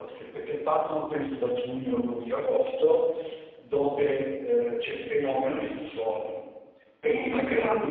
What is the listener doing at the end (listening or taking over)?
listening